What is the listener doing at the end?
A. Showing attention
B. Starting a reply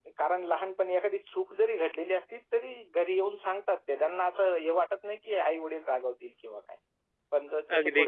A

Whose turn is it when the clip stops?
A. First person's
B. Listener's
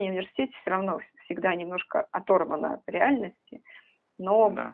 A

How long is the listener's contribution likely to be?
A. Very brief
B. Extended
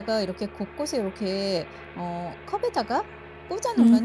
A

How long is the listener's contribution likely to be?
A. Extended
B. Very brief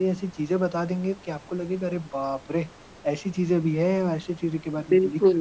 B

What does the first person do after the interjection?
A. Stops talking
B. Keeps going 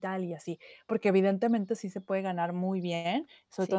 B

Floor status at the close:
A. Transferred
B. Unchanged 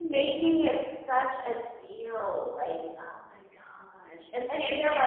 A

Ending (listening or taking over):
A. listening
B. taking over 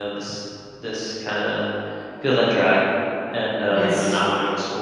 A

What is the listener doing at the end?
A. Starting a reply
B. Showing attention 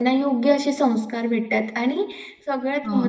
B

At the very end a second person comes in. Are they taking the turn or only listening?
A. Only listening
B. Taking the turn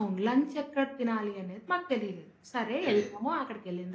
A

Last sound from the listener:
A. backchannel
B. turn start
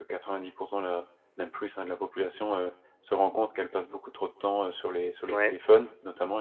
A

